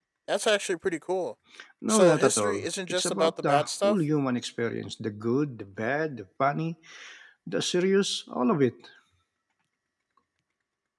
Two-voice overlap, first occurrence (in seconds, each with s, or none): 1.9 s